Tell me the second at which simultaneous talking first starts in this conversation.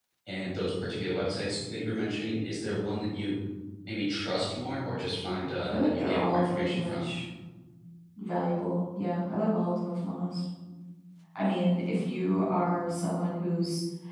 5.7 s

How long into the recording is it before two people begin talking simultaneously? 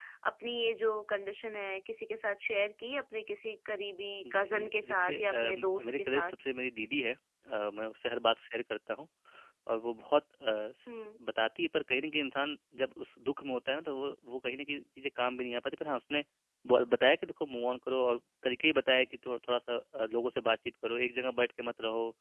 4.2 s

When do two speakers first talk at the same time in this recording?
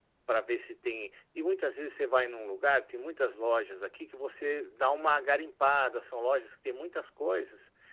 none

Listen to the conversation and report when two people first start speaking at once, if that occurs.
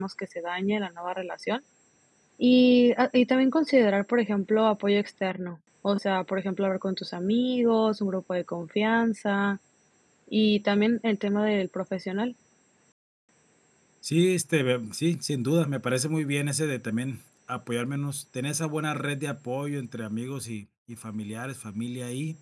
none

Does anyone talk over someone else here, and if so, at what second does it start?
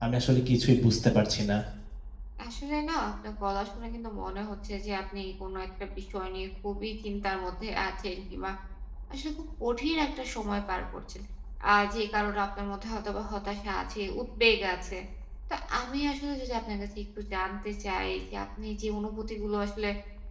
none

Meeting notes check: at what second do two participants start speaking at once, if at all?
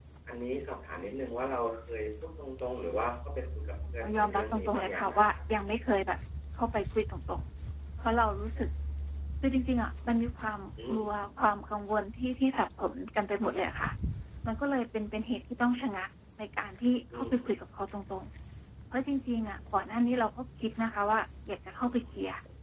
3.9 s

